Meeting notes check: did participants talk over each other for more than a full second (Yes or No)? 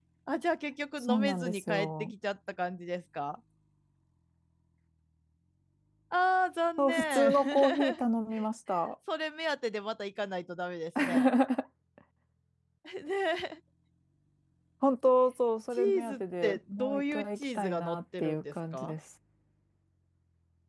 Yes